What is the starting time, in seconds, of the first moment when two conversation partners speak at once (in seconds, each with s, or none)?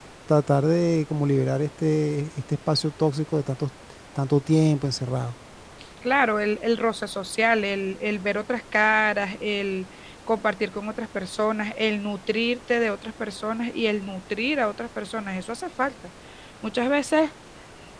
none